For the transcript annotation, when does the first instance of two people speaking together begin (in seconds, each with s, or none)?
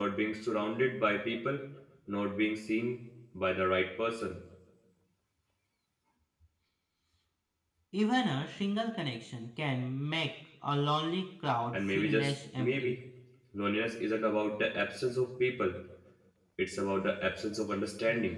11.7 s